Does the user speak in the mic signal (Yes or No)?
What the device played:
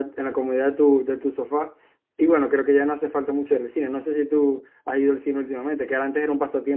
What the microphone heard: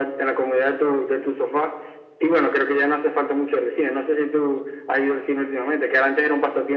No